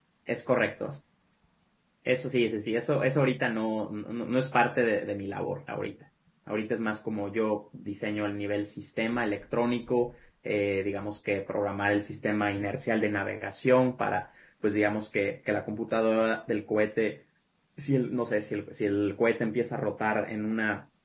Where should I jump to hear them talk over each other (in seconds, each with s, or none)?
none